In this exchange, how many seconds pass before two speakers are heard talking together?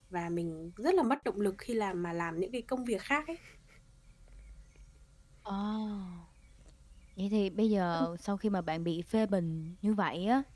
none

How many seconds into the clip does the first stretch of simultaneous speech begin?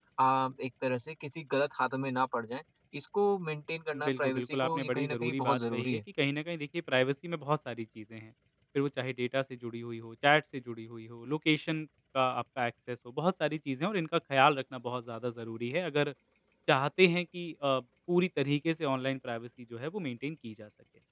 3.9 s

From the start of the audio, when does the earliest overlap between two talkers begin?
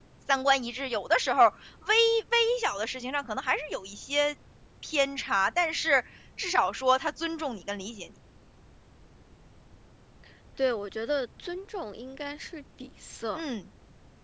none

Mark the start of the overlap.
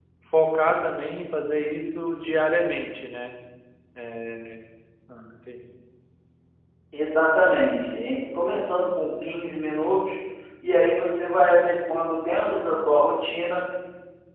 none

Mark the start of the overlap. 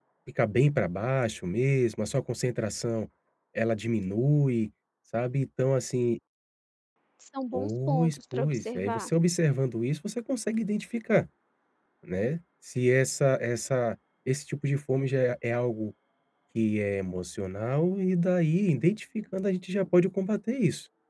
7.5 s

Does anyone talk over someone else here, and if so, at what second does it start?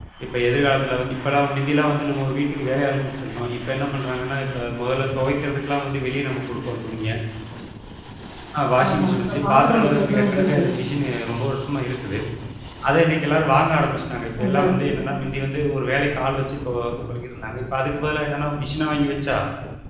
8.9 s

